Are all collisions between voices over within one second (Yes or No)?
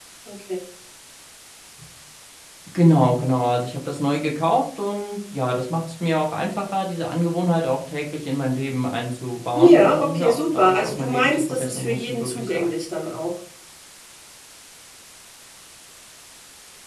No